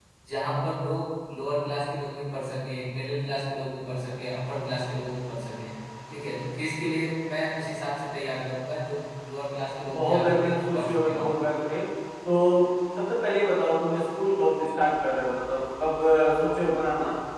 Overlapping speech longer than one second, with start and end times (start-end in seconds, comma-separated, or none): 9.9-11.5